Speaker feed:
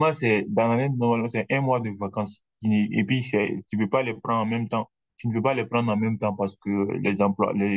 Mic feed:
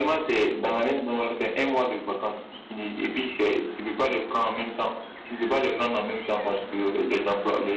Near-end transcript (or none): none